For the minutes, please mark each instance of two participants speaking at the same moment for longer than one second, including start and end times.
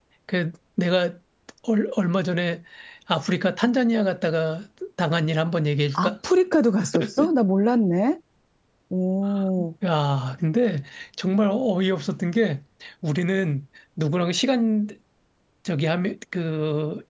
none

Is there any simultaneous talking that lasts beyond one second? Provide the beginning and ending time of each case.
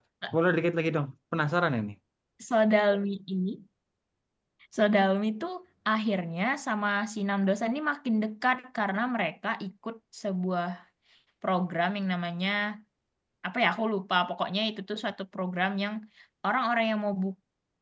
none

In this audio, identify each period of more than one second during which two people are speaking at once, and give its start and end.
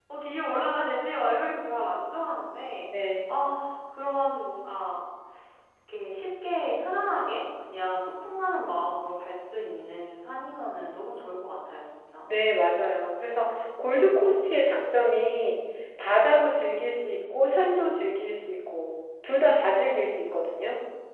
none

